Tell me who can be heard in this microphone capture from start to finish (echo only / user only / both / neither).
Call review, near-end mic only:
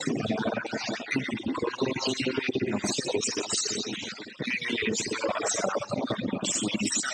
echo only